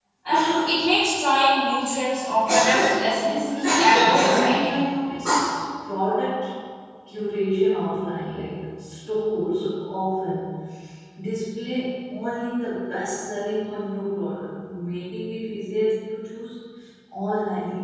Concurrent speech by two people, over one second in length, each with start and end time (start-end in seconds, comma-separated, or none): 3.2-4.8